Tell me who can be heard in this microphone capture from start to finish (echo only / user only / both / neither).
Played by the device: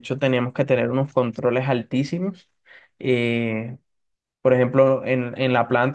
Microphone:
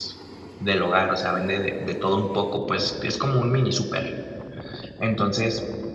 user only